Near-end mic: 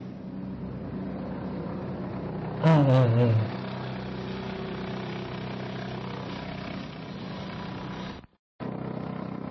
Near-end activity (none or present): present